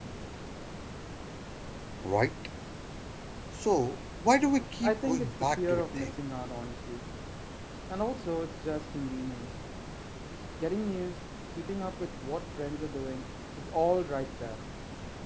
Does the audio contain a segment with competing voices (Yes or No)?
Yes